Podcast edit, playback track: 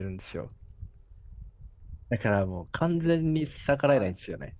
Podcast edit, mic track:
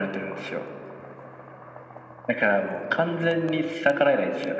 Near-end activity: none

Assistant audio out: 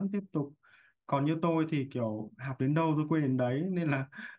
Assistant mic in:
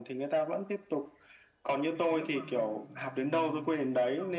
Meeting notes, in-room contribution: present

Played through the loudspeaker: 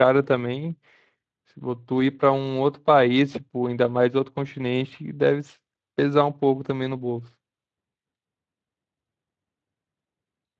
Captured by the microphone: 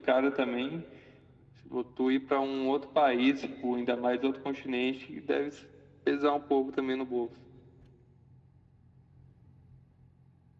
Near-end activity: none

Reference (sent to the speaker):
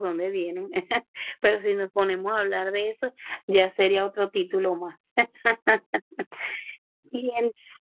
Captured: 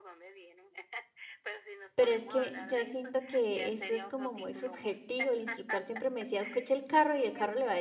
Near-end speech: present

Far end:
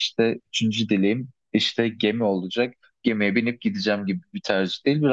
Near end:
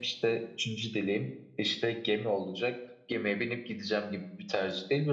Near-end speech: none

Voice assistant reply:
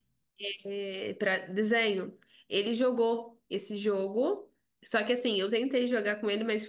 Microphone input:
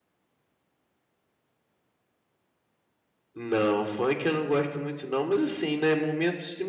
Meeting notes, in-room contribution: present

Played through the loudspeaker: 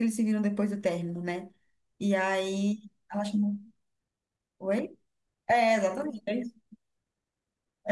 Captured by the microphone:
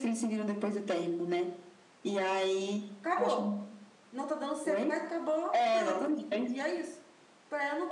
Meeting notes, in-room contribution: present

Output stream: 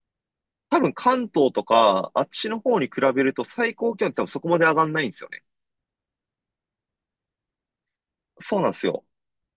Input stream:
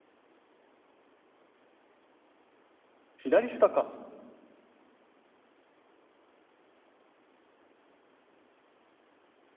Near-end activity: present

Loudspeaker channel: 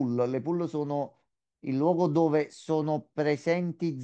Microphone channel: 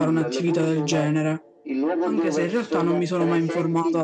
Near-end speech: present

